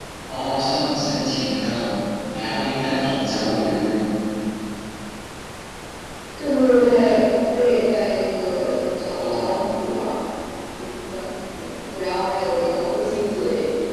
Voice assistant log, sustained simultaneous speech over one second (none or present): none